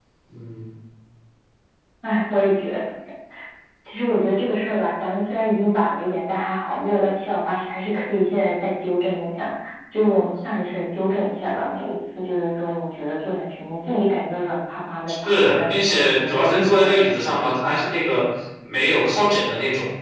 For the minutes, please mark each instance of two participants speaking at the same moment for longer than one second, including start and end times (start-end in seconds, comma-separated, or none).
15.2-17.5